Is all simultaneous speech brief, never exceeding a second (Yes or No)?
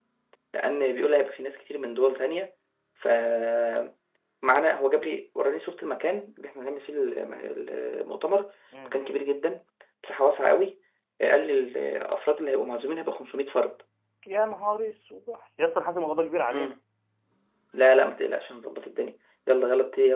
Yes